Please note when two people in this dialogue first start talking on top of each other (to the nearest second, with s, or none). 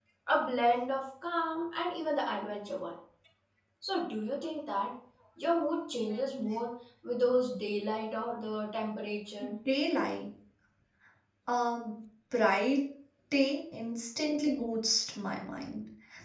none